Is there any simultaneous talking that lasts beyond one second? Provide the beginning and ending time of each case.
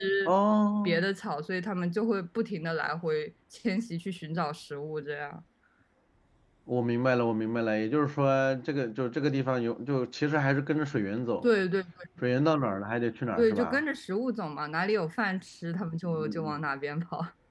none

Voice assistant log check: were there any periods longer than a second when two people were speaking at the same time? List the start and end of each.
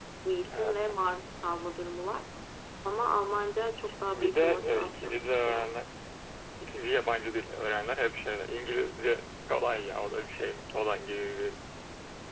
4.1-5.7

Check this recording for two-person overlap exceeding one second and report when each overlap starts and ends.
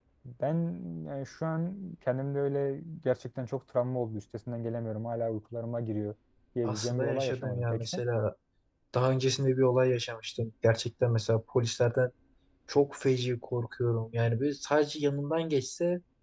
6.6-8.0

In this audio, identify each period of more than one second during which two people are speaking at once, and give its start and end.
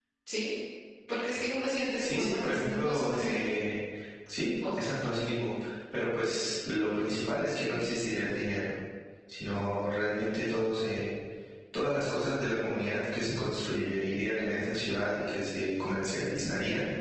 2.0-3.4

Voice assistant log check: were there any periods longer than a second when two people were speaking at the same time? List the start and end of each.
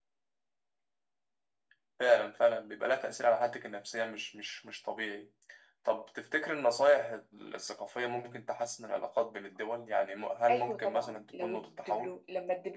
10.5-12.2

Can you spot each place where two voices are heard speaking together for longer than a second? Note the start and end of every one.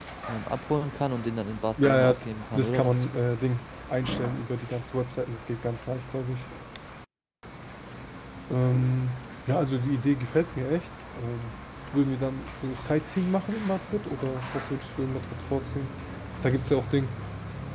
1.8-3.1

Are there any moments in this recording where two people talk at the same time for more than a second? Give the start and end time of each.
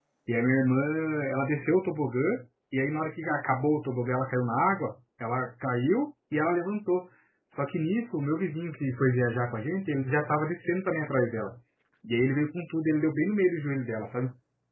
none

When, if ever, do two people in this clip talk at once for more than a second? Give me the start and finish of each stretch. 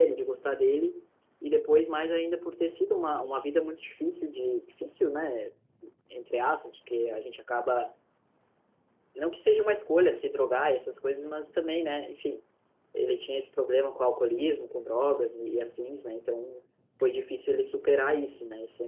none

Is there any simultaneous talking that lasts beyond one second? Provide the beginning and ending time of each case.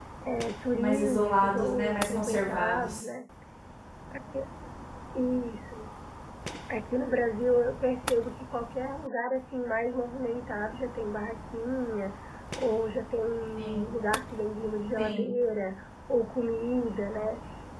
0.8-3.0

